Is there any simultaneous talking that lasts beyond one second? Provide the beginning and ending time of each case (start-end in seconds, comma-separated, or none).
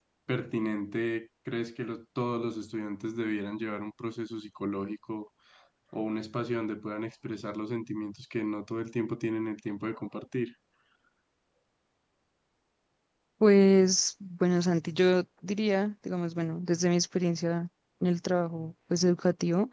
none